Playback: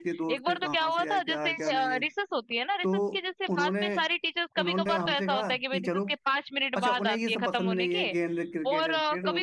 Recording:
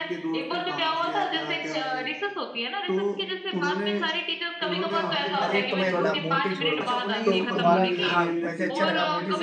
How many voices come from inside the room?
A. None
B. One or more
B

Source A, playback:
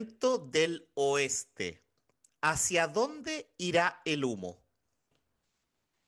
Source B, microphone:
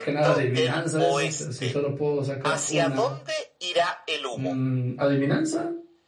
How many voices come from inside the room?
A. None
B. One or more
B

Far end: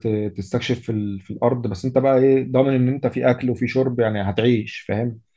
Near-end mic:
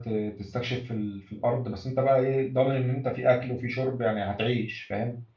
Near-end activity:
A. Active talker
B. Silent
B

